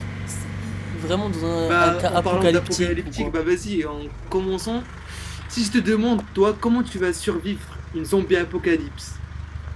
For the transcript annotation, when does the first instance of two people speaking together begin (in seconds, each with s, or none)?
1.6 s